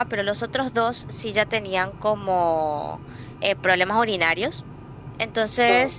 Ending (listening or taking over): listening